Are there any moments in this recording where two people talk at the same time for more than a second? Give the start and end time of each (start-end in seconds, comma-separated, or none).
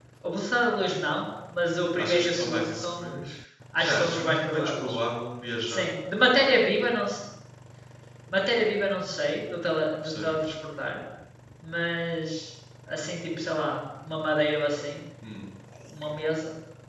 2.0-3.2, 3.8-5.0